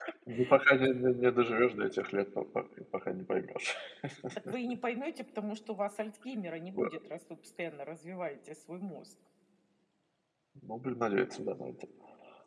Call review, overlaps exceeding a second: none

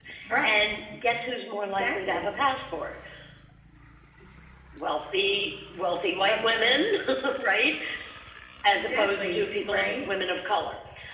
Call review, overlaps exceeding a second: present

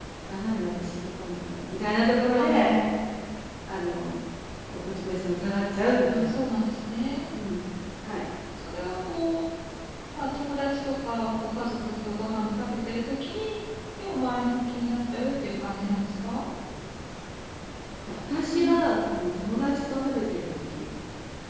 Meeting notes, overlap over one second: none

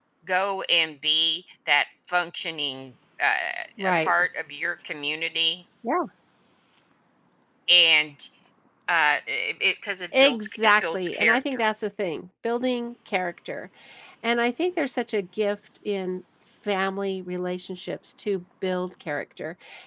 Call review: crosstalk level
present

